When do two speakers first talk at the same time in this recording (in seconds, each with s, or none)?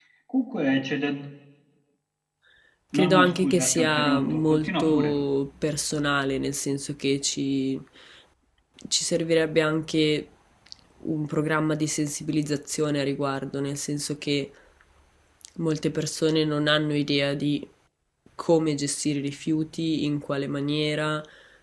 3.0 s